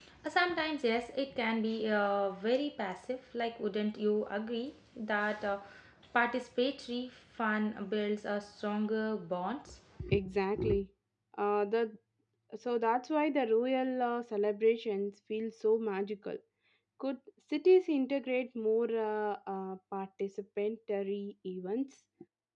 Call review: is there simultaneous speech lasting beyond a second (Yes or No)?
No